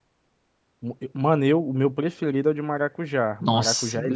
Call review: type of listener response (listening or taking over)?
taking over